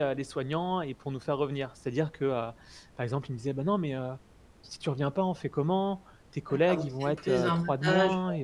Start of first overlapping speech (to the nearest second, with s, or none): 6 s